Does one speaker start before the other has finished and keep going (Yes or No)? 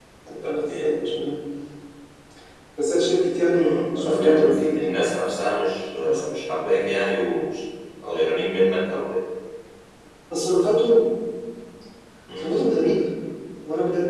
Yes